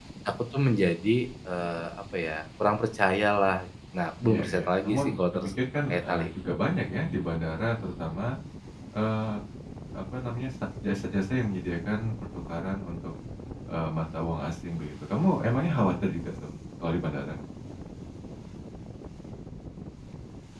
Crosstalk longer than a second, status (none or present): present